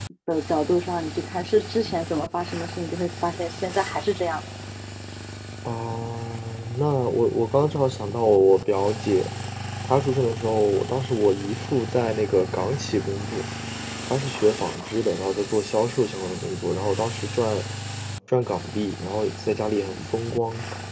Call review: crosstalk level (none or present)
none